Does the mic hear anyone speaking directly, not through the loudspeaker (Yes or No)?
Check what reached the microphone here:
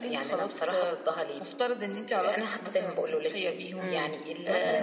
Yes